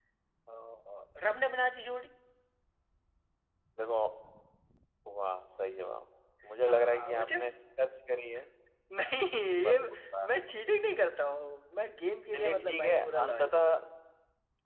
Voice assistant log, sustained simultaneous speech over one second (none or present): present